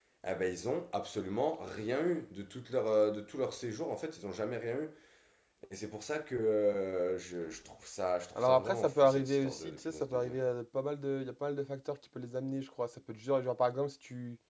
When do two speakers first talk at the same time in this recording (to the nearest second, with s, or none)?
8 s